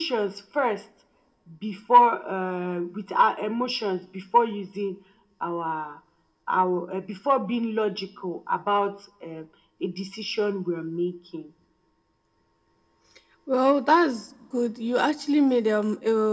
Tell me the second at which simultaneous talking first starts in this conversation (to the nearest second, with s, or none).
none